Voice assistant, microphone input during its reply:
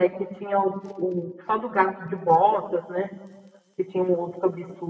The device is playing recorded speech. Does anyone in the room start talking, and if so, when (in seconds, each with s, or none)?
none